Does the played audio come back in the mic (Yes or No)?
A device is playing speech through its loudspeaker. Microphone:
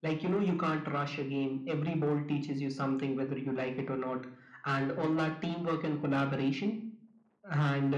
Yes